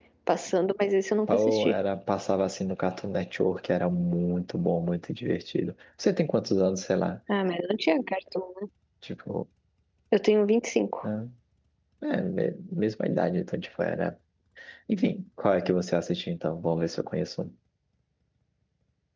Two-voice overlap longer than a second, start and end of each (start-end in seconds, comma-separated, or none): none